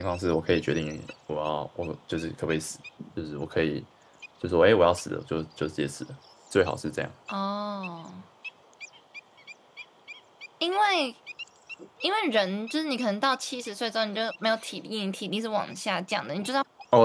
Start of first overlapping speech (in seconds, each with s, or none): none